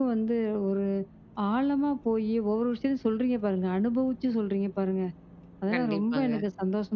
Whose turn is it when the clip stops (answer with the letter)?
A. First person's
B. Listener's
A